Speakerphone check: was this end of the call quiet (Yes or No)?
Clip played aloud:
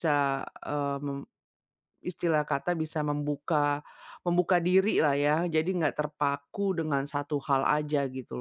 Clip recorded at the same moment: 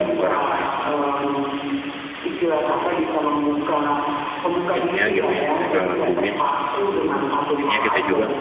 No